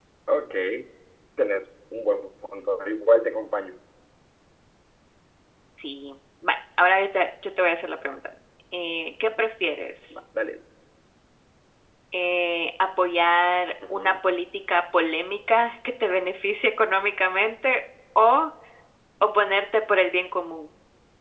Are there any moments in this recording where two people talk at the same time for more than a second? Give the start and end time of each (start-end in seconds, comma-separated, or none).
none